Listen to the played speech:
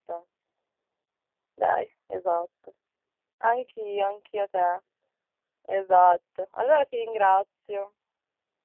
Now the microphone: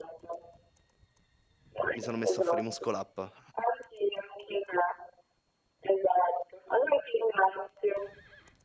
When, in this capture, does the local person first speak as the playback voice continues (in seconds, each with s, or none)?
1.9 s